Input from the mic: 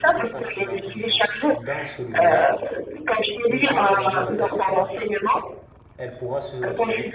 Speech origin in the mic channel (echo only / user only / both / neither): both